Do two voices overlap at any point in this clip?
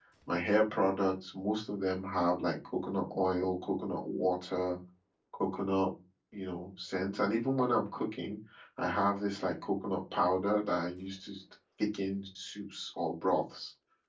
No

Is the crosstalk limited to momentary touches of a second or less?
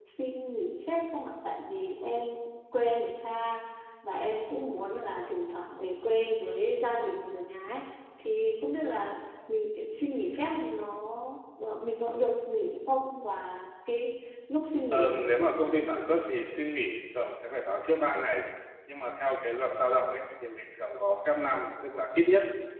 No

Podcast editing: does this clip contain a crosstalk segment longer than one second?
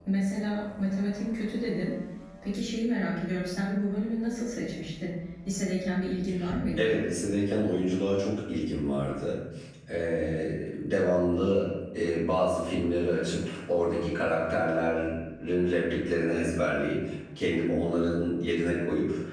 No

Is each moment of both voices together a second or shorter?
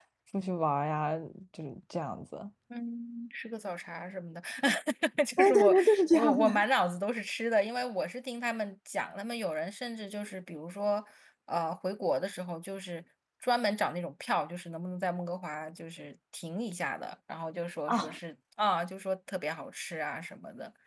No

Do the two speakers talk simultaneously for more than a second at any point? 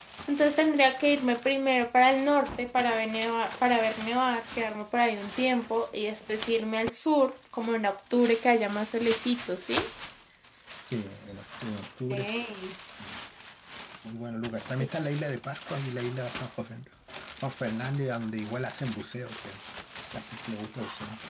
No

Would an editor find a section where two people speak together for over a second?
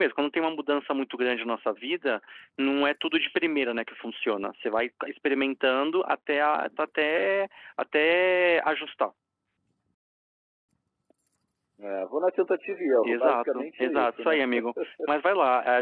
Yes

